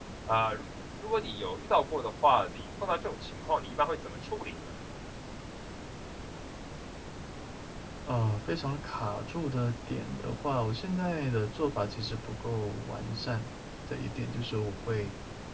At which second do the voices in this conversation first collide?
none

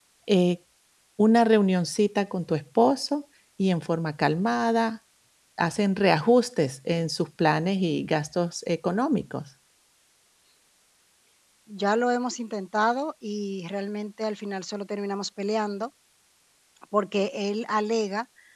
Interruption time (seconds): none

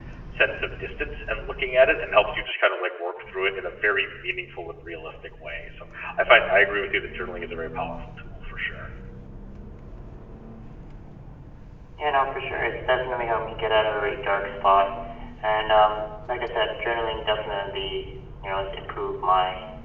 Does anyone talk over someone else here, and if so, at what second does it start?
none

